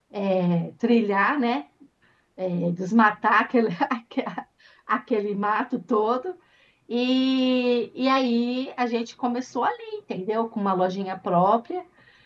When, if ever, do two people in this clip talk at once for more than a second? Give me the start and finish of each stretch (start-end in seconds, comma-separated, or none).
none